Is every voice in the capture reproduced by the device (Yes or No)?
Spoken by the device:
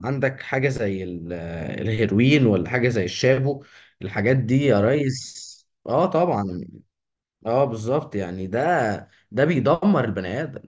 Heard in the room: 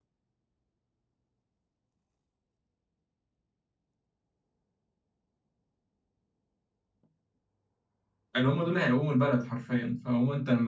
No